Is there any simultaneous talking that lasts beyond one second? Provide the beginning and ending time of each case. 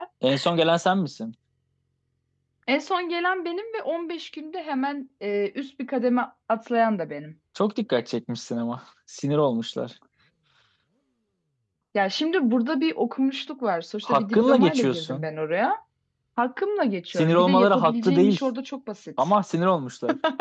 14.0-15.3, 17.1-18.4

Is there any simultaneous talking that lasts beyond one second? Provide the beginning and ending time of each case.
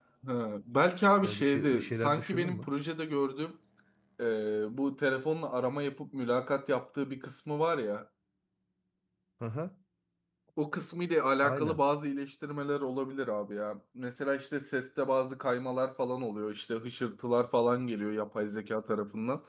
1.2-2.7

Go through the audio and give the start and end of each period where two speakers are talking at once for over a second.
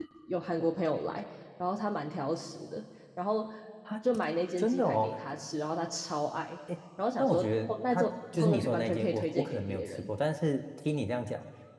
7.2-10.1

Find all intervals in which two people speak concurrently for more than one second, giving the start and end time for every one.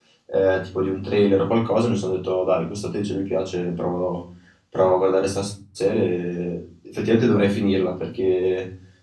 none

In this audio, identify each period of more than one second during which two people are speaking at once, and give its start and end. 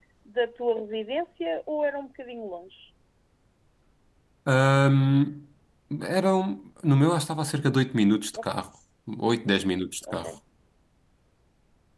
none

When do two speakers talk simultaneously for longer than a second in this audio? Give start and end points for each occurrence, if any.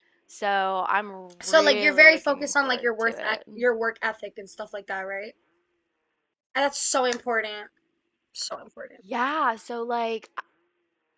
1.5-3.4

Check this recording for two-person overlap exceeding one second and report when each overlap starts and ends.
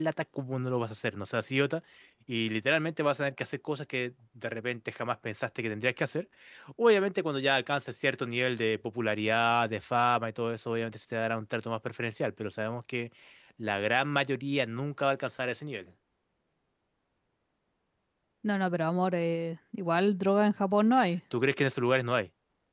none

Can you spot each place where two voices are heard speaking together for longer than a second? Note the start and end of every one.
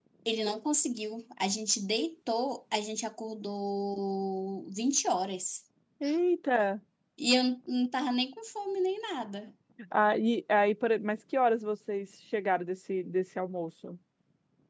none

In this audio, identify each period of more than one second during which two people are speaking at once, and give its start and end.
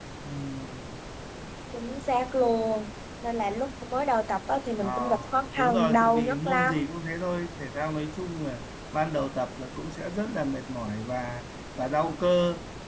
5.6-6.9

